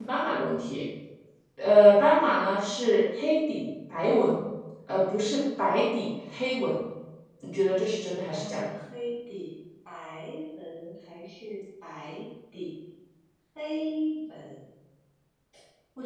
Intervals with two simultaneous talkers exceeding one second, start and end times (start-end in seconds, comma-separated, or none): none